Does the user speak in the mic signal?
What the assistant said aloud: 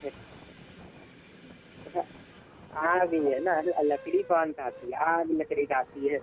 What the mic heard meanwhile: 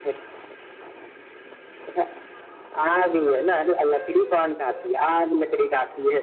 No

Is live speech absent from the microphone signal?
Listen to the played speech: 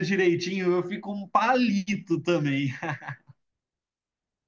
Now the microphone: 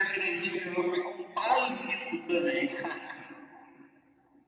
Yes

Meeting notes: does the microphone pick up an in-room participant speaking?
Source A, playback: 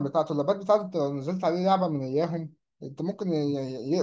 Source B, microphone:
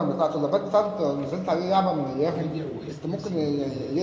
Yes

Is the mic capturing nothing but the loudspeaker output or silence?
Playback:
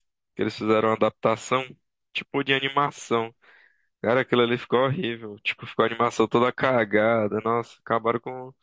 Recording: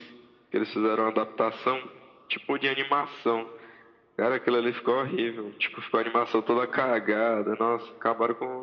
Yes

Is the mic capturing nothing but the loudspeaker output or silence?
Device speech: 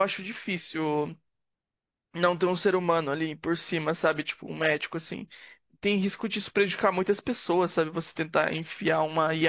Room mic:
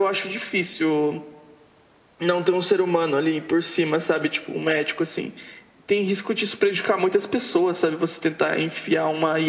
Yes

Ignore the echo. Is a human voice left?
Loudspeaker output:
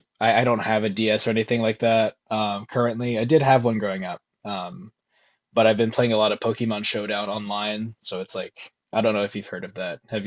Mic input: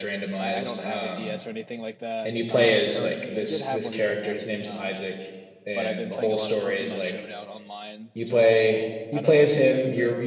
Yes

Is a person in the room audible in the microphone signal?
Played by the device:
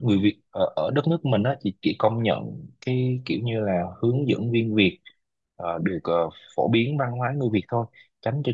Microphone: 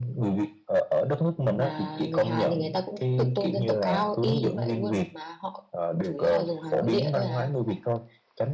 Yes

